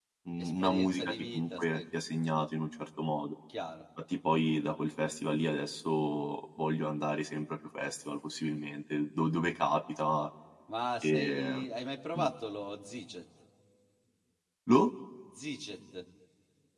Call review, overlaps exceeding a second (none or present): present